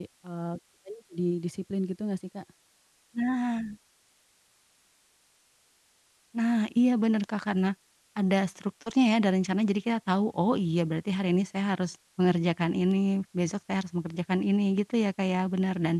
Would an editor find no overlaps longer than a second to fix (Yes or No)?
Yes